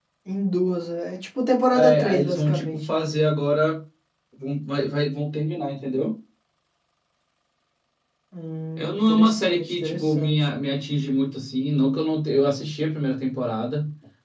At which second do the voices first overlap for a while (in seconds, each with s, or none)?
1.7 s